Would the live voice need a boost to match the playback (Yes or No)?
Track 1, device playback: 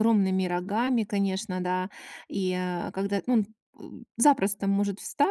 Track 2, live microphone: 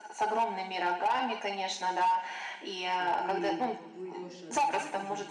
Yes